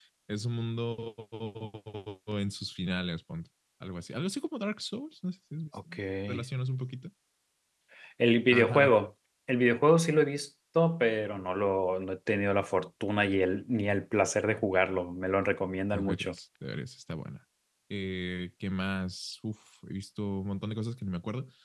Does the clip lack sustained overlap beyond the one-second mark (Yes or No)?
Yes